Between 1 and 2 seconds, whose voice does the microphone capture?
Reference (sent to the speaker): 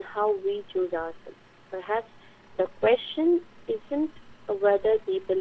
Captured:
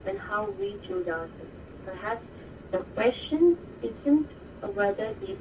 echo only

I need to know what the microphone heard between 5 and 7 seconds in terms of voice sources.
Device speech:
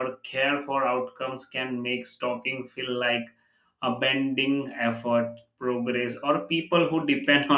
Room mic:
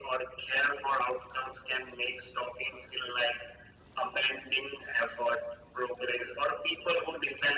echo only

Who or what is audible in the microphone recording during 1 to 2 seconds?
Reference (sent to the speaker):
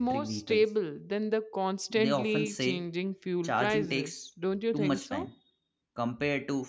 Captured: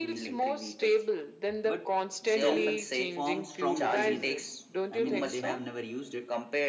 both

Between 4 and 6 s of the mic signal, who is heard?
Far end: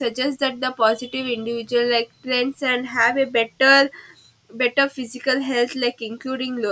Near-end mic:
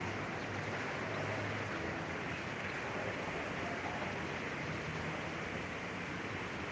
neither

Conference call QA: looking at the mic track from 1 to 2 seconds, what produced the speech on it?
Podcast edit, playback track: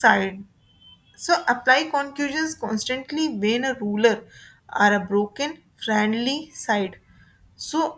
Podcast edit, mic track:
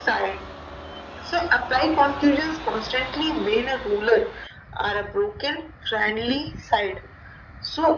echo only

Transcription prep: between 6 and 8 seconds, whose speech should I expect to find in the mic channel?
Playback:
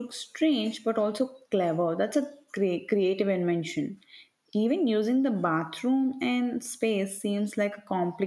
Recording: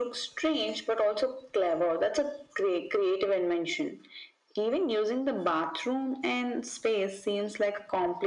echo only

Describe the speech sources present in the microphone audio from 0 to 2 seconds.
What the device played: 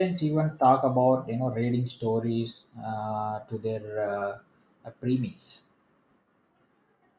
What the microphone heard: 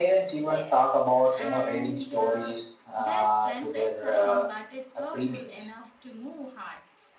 both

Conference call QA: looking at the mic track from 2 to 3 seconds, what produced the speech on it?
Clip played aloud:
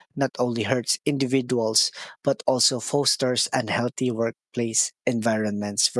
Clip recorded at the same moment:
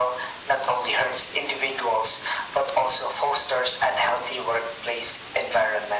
echo only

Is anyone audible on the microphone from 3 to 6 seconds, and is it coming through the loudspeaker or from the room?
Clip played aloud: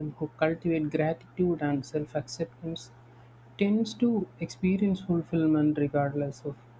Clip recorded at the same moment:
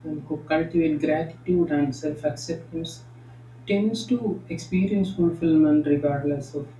echo only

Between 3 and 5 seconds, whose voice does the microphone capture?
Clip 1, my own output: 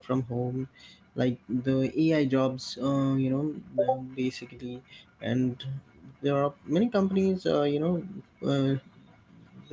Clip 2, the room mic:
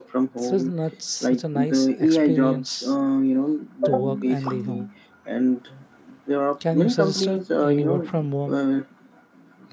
both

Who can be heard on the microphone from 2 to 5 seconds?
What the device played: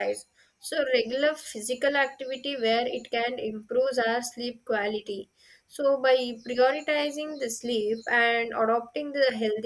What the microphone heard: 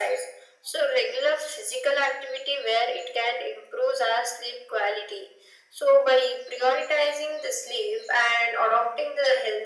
echo only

